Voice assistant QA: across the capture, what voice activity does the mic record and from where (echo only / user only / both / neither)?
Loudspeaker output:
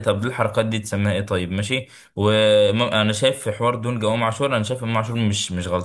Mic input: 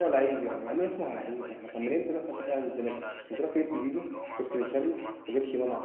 both